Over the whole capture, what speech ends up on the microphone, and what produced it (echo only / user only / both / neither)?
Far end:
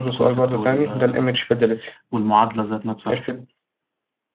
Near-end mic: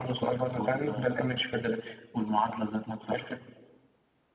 echo only